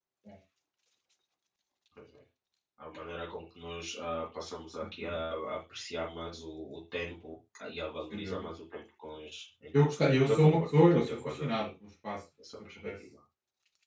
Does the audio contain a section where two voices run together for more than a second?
Yes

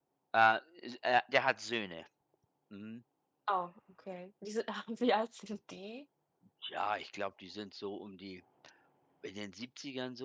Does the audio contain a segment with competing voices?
No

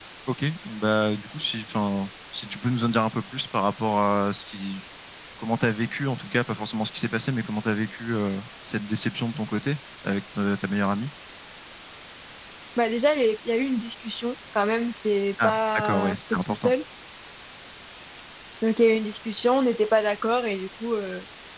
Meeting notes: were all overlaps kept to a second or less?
No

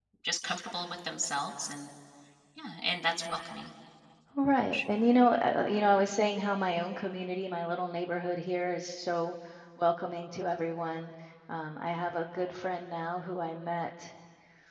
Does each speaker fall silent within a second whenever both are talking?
Yes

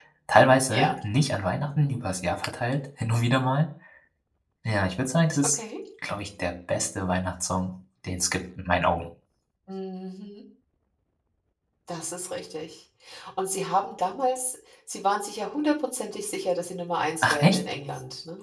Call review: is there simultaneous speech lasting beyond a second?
No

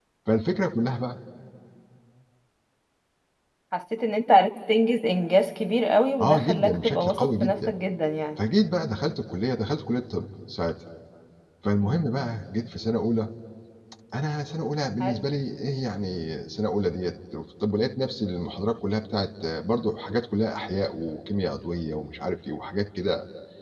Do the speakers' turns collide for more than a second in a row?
Yes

